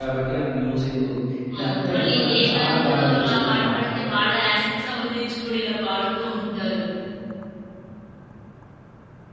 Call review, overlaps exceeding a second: present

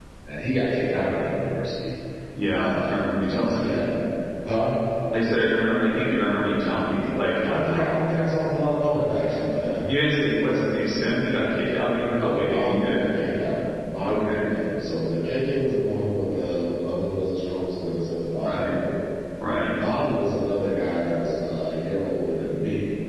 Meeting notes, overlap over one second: present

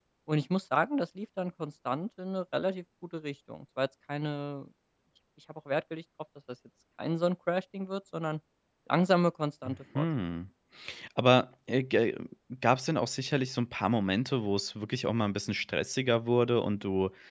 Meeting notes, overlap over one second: none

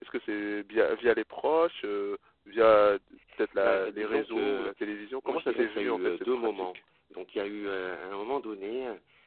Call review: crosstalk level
present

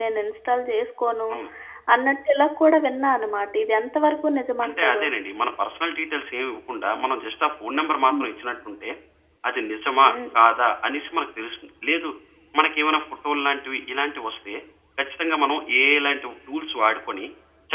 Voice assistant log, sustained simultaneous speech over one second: none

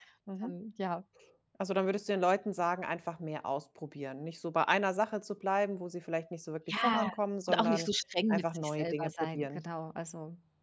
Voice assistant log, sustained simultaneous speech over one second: present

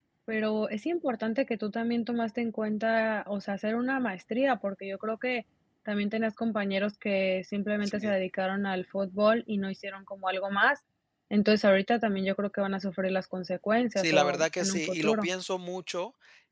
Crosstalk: present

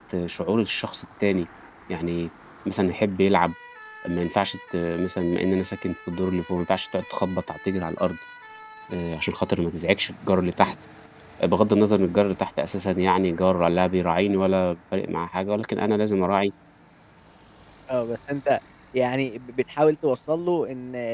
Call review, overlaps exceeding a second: none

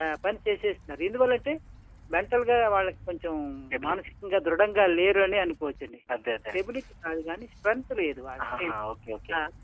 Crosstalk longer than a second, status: none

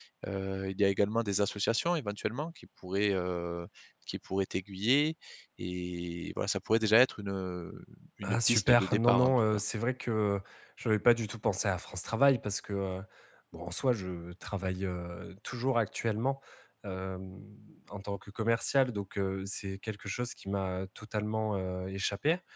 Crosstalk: present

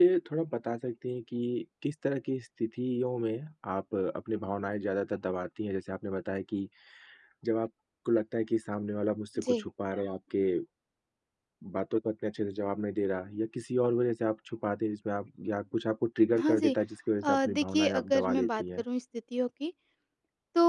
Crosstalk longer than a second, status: present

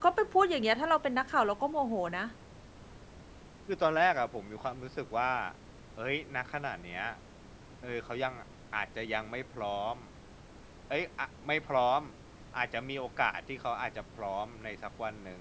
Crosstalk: none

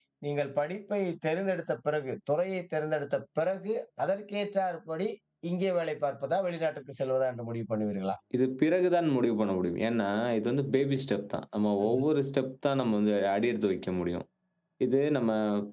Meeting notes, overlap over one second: none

